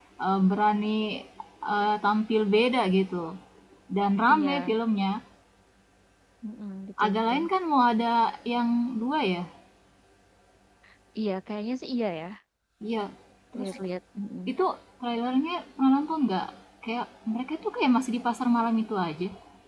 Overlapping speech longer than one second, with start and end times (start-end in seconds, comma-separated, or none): none